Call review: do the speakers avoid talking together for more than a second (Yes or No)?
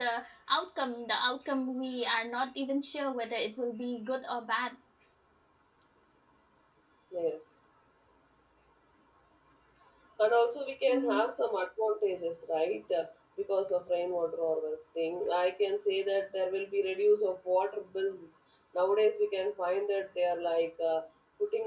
Yes